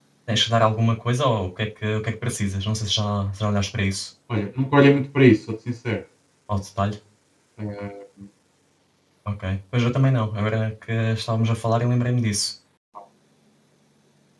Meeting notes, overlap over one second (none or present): none